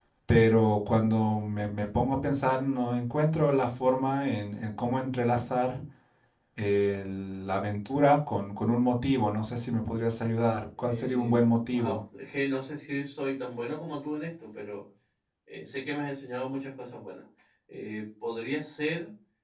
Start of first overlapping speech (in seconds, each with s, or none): 10.8 s